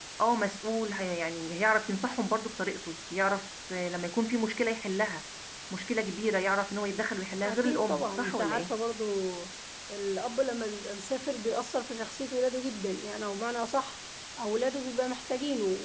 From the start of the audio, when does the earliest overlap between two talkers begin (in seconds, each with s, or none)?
7.4 s